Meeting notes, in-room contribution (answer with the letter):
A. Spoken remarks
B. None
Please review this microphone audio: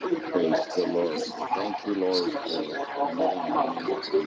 A